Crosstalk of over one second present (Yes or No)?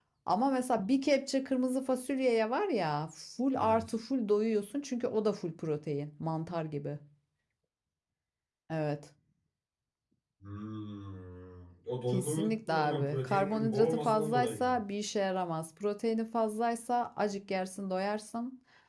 Yes